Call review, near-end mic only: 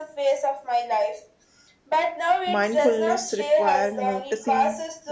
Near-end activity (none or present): present